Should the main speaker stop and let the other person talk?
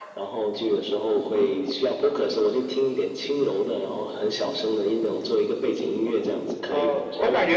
Yes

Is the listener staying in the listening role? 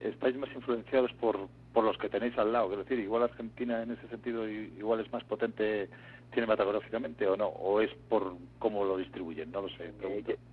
No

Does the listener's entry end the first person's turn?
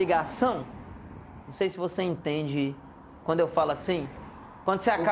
Yes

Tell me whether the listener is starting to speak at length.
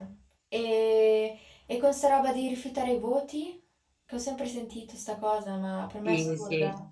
Yes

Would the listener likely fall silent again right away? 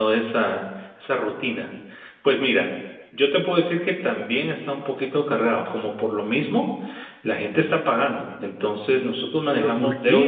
No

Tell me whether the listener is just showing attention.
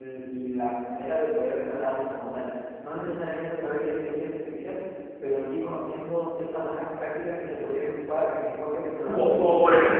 No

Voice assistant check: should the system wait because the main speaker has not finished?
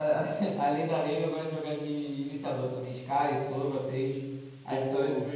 No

